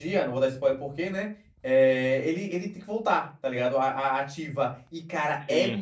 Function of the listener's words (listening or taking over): listening